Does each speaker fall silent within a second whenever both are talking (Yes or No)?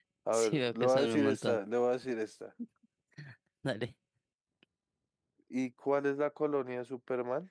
No